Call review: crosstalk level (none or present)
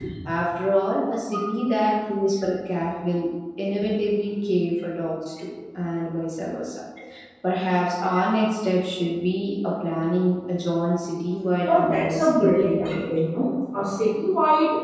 present